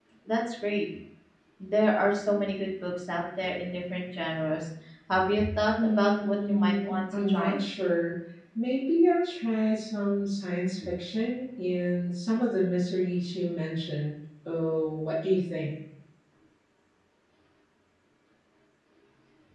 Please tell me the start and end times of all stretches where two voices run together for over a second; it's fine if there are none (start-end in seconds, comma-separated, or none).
5.8-7.6